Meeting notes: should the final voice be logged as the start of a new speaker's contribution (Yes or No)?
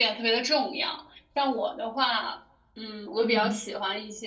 No